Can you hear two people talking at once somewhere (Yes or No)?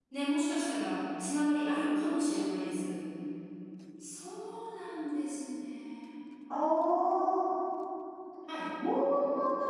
No